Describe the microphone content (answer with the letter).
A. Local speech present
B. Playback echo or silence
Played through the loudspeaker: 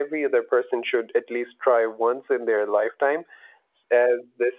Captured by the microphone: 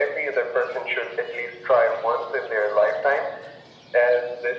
B